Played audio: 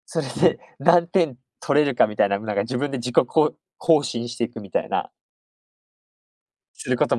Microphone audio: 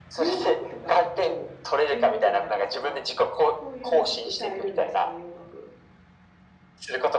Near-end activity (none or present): present